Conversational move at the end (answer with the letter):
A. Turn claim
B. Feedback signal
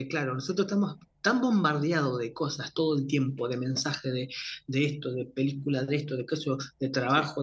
B